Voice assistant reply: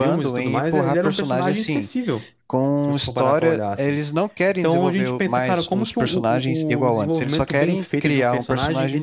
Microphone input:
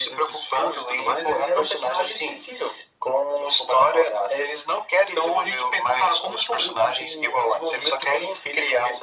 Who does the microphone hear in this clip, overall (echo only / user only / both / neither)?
echo only